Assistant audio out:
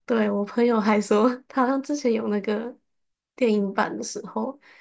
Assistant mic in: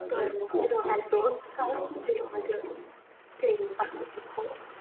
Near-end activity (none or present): present